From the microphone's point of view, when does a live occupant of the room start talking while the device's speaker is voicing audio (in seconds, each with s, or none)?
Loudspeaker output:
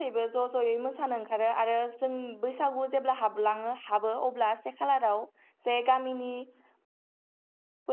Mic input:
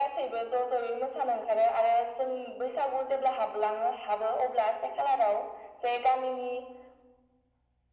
none